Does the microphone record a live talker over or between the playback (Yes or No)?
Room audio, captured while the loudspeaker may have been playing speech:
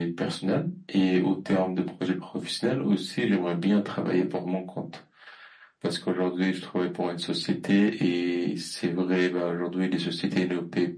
No